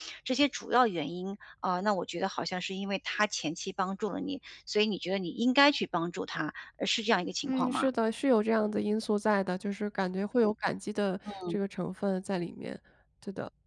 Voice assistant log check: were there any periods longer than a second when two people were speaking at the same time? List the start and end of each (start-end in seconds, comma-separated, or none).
none